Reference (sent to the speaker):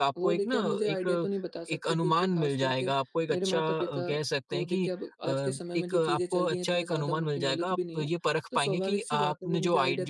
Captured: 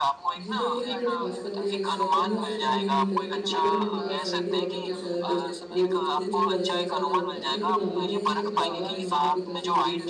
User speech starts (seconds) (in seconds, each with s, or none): 0.4 s